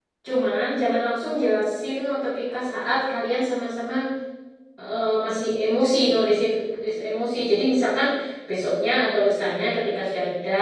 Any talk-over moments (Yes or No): No